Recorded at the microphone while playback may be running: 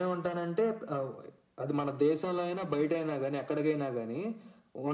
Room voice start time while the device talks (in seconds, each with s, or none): none